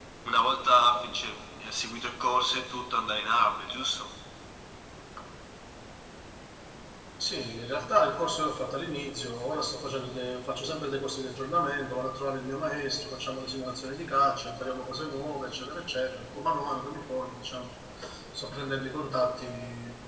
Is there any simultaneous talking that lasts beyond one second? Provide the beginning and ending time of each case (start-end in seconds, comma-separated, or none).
none